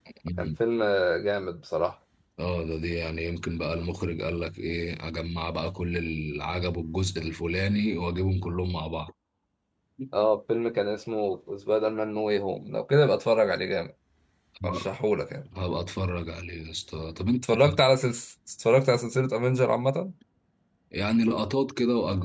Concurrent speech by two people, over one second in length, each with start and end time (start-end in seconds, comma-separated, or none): none